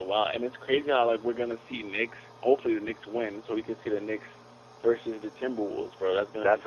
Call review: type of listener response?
taking over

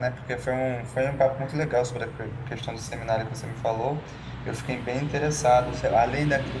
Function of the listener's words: listening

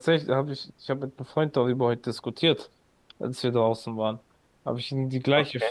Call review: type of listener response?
listening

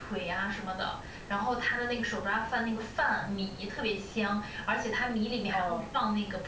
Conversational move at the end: listening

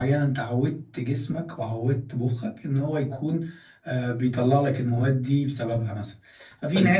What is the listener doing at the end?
listening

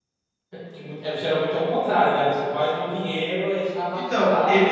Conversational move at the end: taking over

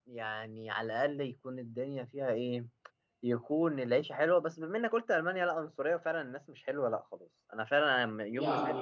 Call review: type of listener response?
taking over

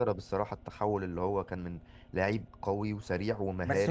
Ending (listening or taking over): taking over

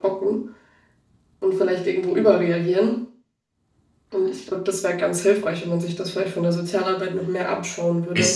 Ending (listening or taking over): taking over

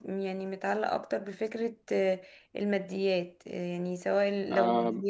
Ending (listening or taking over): listening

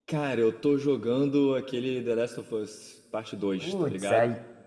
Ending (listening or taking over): taking over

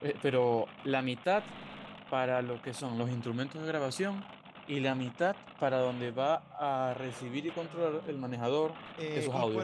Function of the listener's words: taking over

